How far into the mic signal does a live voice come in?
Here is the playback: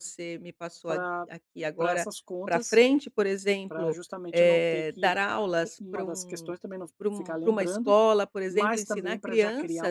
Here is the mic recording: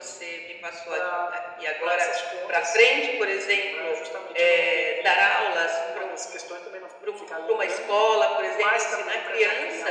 none

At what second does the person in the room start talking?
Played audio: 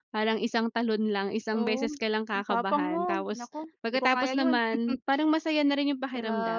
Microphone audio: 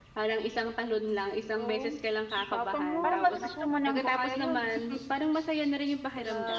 3.0 s

